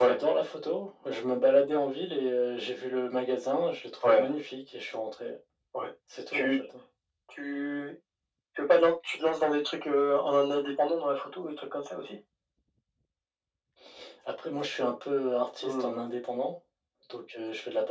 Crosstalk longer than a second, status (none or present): none